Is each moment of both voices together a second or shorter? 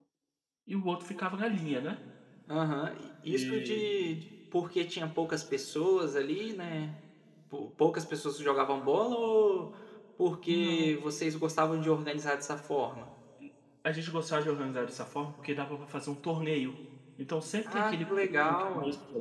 No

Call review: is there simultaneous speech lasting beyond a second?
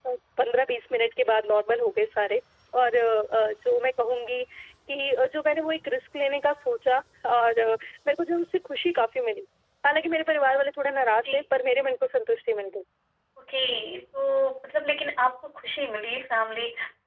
No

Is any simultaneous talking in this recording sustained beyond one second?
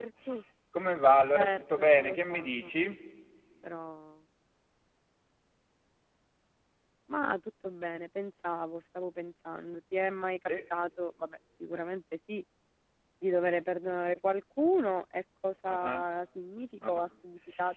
Yes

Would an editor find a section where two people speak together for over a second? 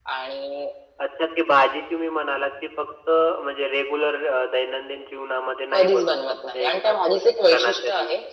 Yes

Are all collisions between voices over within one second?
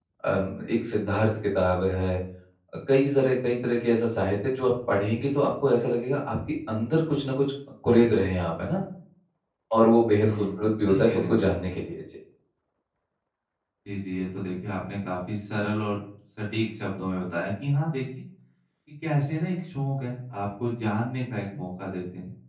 No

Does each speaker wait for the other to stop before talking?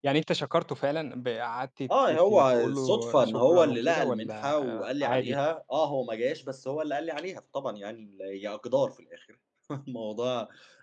No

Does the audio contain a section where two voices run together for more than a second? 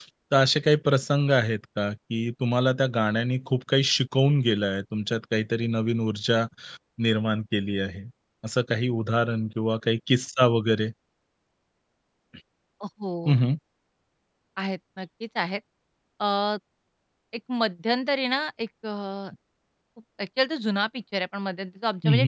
No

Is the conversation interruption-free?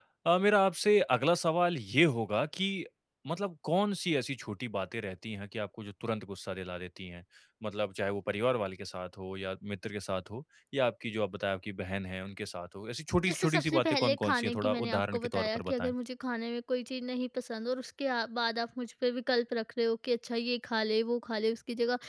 No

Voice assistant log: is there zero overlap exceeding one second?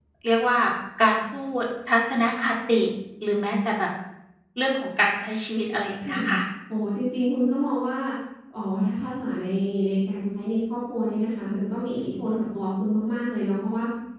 Yes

